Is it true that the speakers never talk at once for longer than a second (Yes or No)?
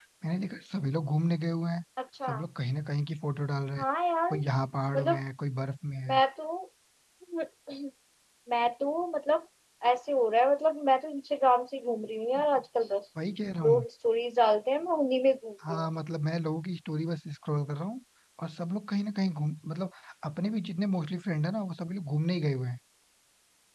Yes